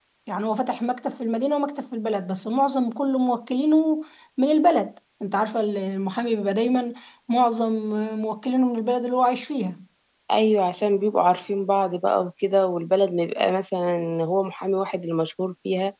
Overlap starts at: none

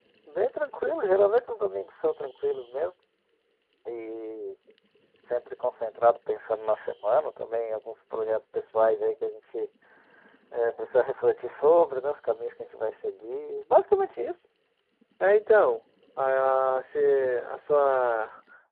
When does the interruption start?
none

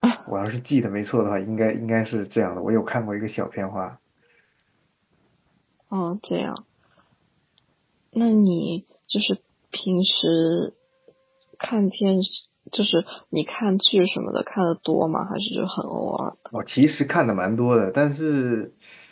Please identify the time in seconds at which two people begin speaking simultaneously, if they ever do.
none

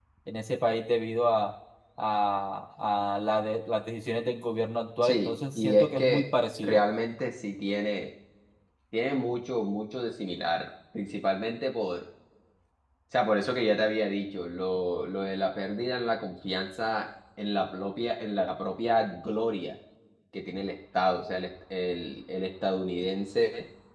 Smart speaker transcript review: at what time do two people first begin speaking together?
5.0 s

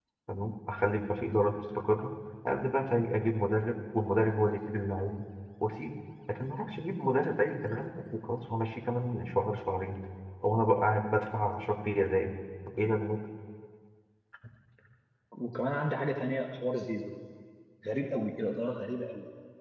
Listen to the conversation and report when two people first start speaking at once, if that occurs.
none

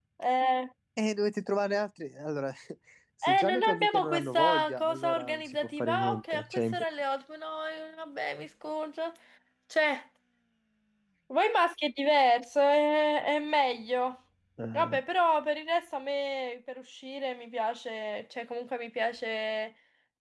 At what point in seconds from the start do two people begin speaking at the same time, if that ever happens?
3.2 s

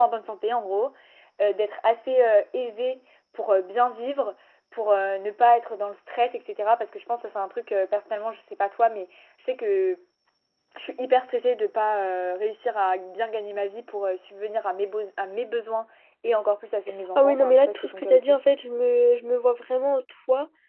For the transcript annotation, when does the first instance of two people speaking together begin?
17.1 s

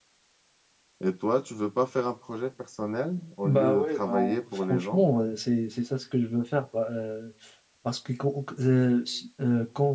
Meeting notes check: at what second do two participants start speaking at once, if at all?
3.4 s

